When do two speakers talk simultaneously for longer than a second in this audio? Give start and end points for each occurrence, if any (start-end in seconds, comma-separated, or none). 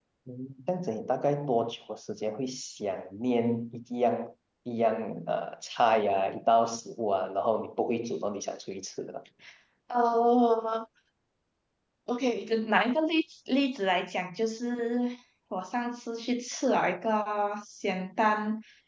none